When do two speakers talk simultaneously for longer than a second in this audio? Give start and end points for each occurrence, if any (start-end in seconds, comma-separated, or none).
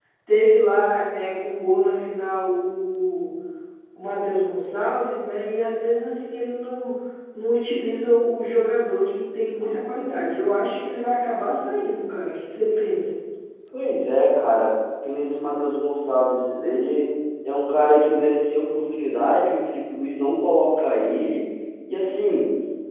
none